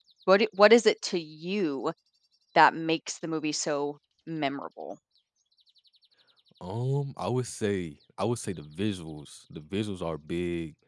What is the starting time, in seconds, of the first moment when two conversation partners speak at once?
none

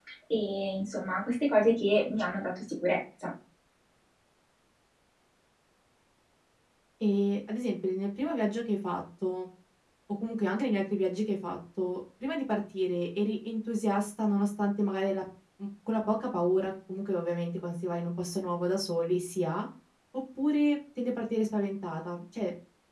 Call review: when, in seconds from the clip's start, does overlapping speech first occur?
none

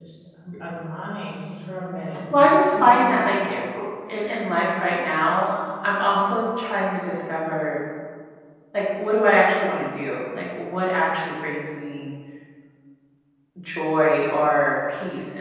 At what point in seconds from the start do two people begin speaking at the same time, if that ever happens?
2 s

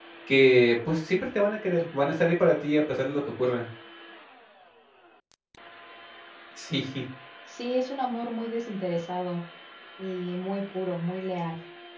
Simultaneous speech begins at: none

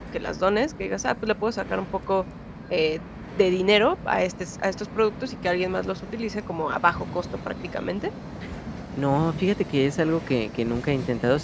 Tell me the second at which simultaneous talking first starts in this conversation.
none

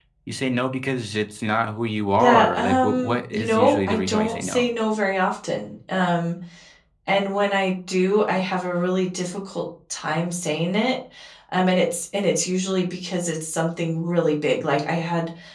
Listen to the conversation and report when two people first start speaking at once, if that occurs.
2 s

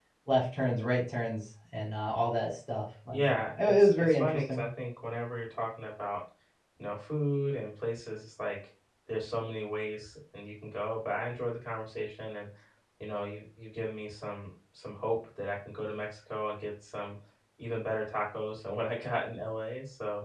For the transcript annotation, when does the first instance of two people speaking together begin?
3 s

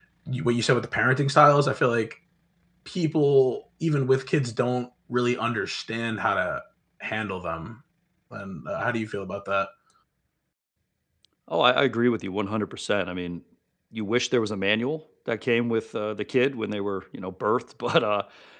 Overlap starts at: none

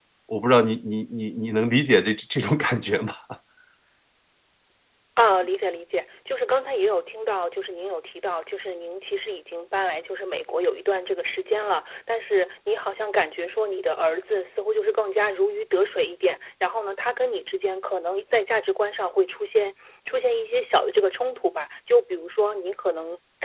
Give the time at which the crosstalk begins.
none

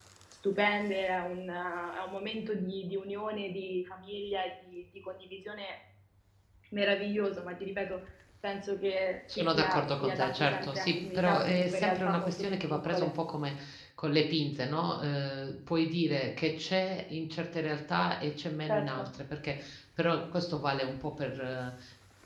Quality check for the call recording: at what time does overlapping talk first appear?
9 s

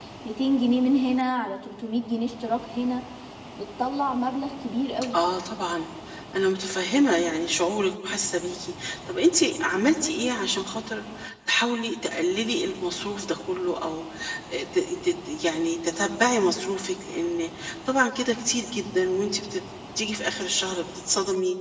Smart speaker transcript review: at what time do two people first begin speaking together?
none

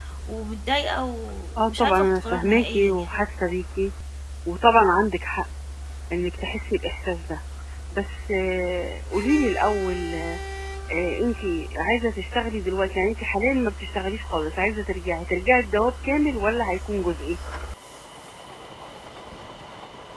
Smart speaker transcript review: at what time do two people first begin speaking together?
2 s

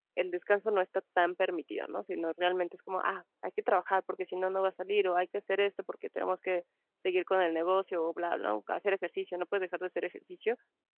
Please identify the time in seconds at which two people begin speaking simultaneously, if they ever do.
none

